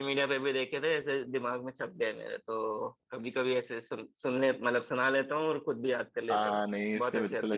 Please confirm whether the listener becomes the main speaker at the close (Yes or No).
Yes